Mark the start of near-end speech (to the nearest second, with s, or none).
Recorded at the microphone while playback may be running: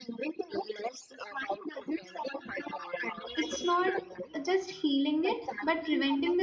3 s